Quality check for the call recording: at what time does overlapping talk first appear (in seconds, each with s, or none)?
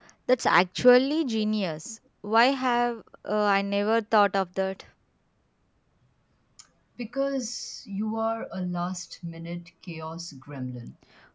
none